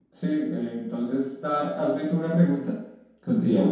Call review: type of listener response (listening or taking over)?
taking over